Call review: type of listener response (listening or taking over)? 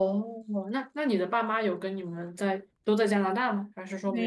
taking over